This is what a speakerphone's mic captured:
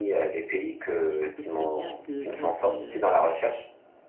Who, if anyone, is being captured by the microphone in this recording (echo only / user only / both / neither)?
both